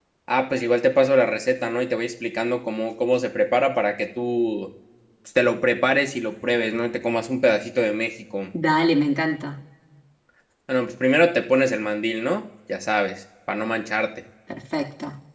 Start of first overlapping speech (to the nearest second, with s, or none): none